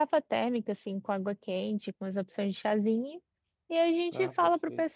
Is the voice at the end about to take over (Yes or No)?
No